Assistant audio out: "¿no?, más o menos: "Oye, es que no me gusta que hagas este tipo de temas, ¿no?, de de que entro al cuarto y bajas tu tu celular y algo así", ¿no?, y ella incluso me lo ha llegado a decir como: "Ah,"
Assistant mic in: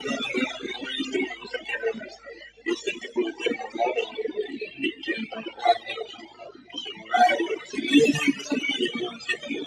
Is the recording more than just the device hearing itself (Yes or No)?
No